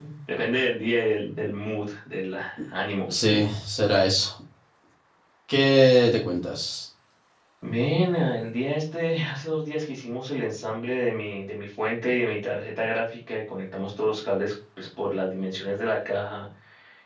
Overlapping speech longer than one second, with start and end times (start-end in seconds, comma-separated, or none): none